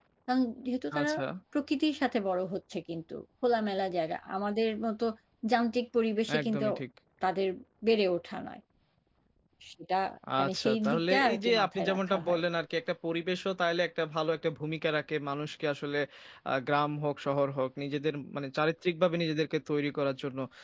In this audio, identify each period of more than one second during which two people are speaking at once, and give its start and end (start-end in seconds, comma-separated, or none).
10.4-12.4